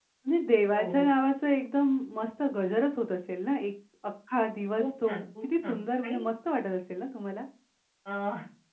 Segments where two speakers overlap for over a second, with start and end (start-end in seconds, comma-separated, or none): 4.8-6.2